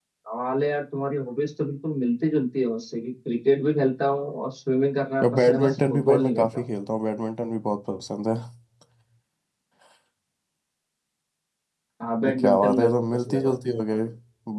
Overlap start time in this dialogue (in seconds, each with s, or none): 5.2 s